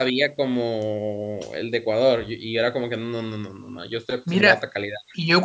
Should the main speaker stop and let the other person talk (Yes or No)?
Yes